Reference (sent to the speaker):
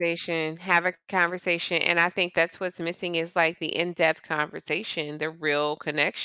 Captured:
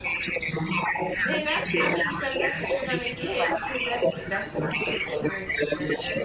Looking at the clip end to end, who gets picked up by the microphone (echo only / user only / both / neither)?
both